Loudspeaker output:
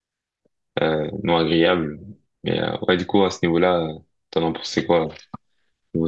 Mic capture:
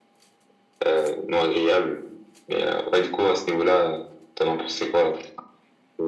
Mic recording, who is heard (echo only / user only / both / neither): echo only